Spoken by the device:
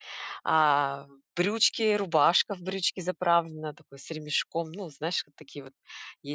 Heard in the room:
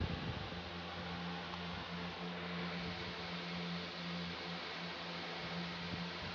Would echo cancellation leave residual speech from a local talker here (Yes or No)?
No